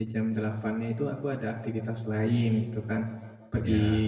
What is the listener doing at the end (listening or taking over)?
listening